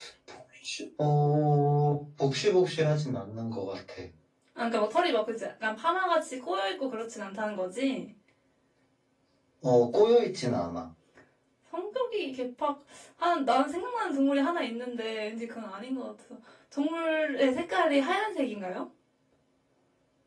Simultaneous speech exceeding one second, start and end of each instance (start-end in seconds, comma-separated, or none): none